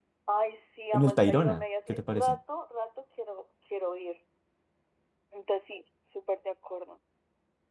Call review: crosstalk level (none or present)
present